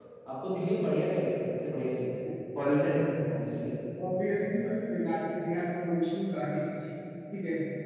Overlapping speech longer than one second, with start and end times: none

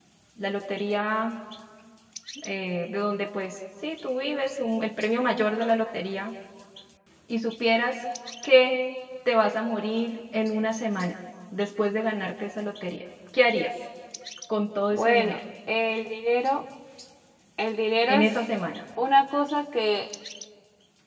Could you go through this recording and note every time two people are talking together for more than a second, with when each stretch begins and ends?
none

